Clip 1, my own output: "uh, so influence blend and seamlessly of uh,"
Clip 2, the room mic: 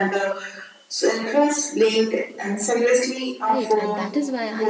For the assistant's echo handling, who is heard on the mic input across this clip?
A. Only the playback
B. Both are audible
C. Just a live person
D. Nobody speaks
B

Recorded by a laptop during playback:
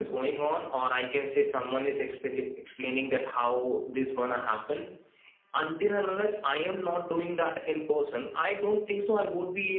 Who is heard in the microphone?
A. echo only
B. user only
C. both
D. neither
A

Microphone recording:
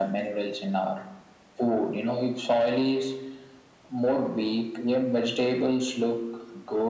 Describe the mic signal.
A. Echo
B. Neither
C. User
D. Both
A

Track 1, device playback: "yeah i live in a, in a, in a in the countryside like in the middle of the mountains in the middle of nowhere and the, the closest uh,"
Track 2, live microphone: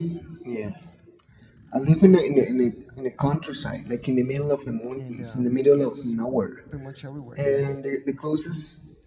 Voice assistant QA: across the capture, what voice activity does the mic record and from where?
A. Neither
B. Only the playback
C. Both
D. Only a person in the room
C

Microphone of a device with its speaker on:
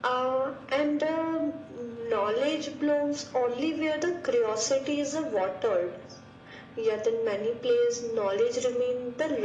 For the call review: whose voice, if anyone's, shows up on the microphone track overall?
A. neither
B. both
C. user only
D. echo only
D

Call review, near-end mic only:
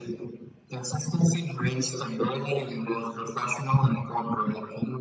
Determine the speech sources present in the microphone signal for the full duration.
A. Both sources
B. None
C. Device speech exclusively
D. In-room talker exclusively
C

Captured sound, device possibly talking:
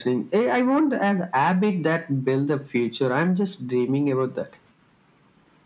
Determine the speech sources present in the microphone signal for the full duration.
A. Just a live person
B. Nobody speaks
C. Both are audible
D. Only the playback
D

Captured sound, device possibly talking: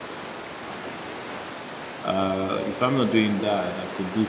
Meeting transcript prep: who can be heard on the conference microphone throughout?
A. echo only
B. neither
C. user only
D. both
C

